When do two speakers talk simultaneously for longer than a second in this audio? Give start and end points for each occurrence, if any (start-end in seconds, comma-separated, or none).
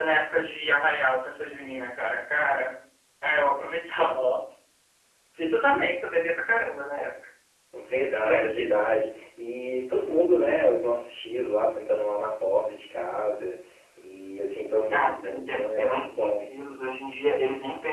14.9-16.4